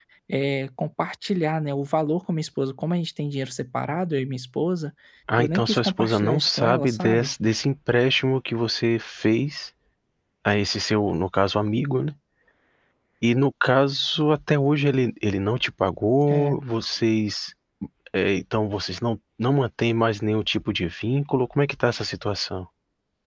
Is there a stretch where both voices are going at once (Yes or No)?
Yes